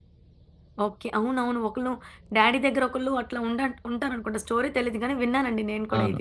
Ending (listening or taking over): taking over